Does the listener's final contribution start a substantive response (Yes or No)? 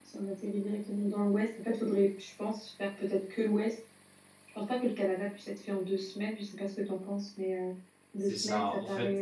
Yes